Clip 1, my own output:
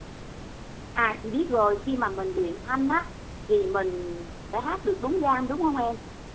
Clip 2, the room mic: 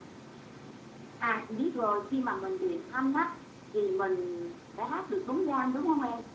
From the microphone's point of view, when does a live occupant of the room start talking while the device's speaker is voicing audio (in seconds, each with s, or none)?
none